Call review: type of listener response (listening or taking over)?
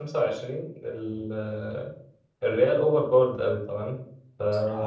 listening